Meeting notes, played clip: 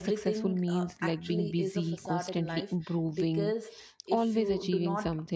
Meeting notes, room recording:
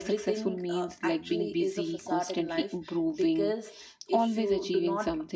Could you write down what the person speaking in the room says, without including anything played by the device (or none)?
none